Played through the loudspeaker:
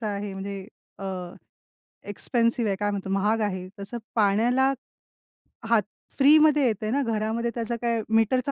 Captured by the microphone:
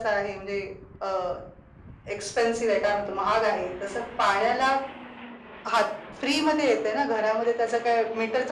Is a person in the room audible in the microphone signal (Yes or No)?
No